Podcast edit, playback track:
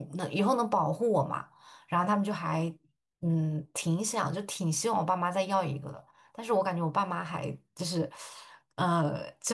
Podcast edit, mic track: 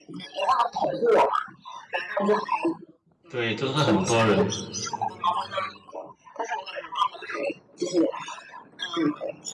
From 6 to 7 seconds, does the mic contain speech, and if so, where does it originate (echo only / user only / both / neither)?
echo only